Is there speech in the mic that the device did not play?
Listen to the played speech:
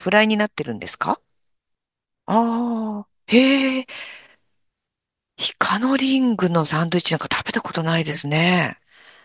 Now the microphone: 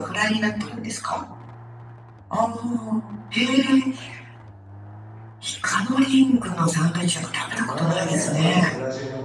Yes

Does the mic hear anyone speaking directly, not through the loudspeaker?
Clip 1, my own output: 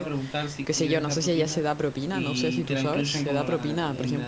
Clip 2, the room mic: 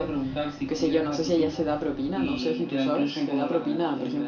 No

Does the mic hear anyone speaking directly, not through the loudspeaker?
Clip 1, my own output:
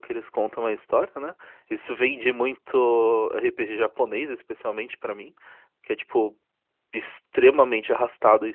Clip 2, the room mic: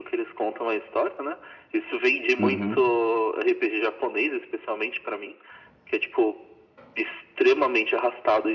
Yes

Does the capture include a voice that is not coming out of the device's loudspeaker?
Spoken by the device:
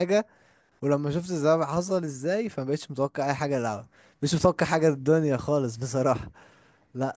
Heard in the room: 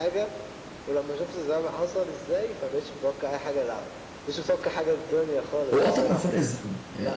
Yes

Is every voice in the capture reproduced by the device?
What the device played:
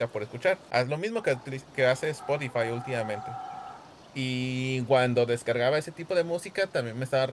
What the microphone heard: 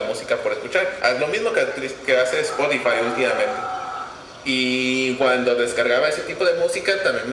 Yes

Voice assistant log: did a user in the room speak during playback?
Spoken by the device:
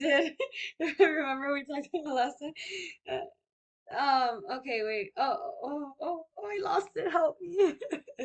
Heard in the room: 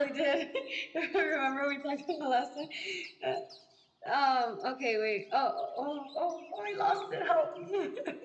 No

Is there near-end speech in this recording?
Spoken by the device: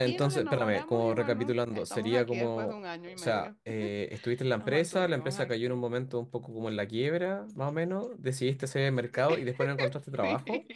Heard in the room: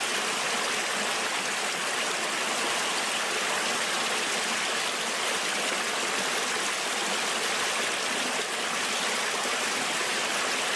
No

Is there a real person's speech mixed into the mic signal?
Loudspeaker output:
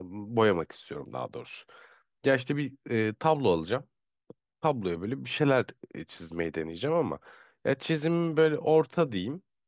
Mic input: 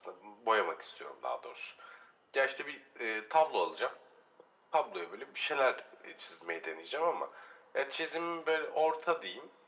No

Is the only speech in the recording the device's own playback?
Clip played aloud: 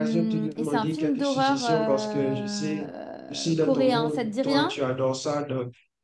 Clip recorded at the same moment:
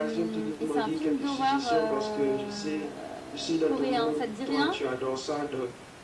Yes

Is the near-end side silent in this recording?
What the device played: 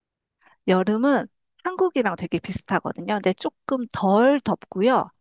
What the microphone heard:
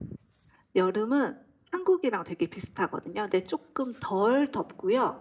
Yes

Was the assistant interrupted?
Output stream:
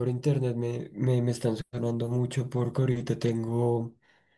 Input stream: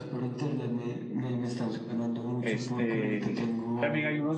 Yes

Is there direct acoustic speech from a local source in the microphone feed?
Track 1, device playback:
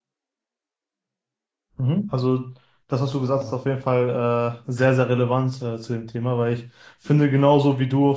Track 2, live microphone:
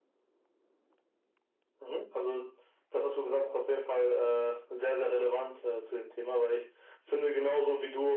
No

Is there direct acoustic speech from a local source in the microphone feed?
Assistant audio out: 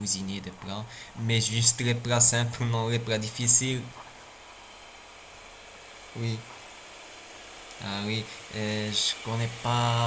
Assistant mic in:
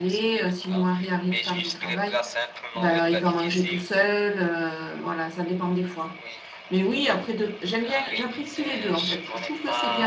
Yes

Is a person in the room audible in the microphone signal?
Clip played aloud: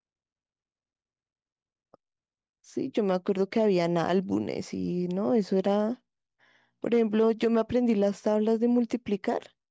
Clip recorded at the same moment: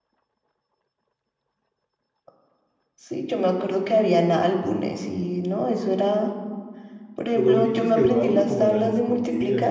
Yes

